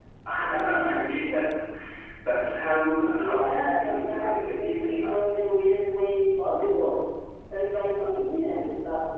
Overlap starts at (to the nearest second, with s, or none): 3 s